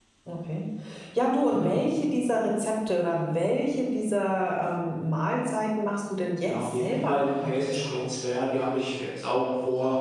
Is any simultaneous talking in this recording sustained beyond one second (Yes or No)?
Yes